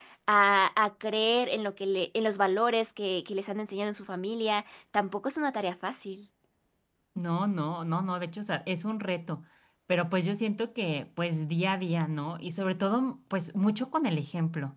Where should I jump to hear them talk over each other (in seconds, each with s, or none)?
none